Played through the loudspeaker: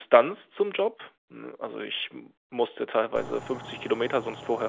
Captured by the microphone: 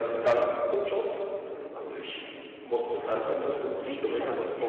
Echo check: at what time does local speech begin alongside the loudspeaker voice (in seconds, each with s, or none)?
3.0 s